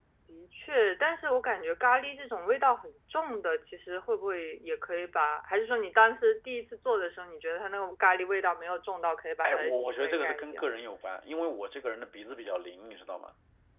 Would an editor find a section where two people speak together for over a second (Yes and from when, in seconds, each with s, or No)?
Yes, from 9.4 s